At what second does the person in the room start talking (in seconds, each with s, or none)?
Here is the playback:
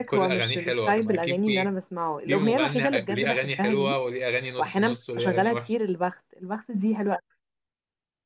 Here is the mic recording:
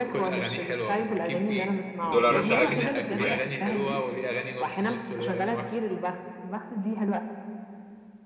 2.0 s